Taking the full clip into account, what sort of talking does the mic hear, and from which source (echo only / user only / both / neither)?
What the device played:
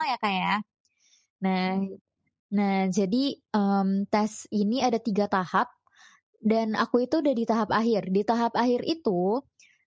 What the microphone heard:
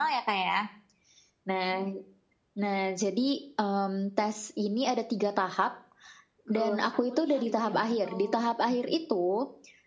both